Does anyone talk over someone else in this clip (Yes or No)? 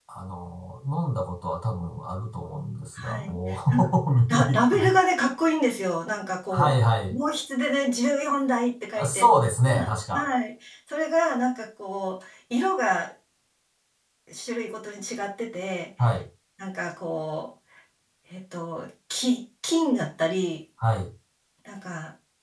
Yes